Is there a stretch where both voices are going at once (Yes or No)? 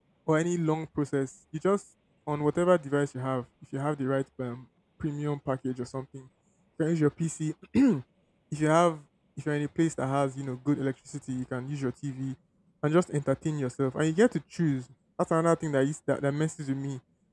No